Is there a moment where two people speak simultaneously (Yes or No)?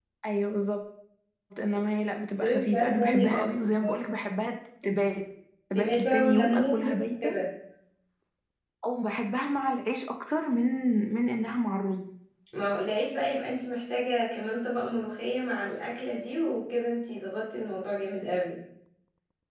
Yes